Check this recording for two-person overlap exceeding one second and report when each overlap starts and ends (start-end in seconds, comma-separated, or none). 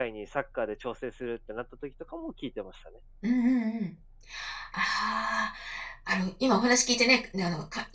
none